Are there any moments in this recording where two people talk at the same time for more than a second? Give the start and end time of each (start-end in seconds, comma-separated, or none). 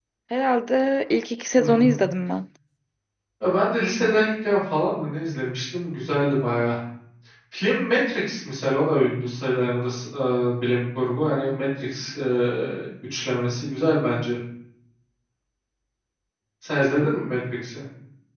none